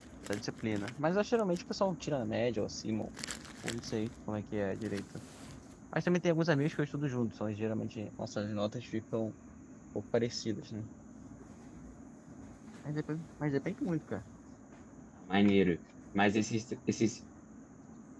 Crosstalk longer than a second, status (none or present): none